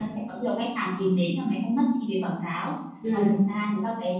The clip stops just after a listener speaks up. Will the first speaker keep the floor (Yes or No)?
Yes